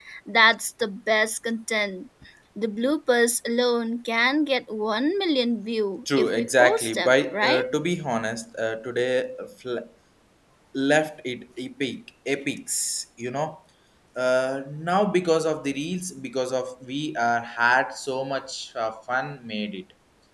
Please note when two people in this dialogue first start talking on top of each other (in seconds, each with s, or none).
6.1 s